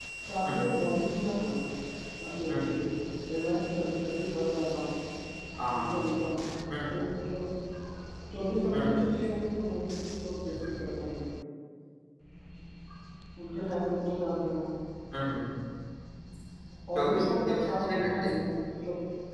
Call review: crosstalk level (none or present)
present